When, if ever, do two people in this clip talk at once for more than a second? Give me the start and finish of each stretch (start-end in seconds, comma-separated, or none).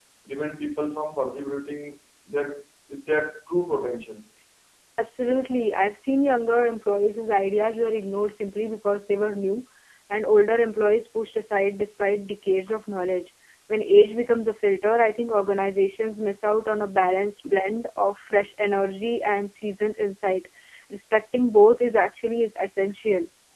none